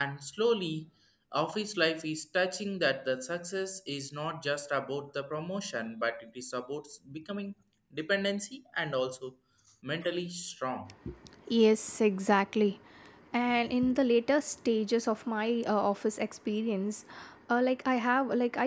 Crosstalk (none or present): none